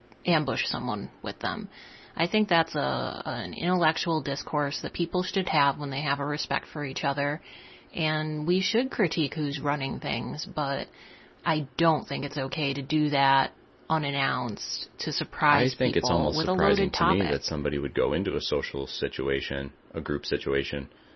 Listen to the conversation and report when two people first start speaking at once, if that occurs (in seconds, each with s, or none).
15.4 s